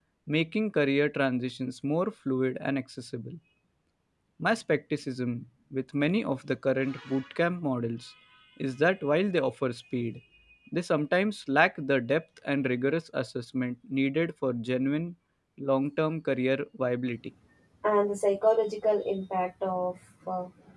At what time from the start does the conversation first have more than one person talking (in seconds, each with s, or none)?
none